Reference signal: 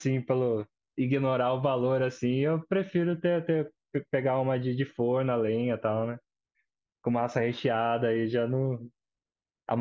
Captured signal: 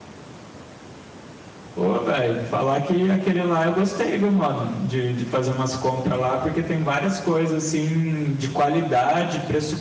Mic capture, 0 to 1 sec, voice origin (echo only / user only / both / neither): neither